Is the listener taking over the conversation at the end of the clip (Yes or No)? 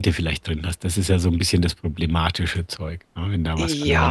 Yes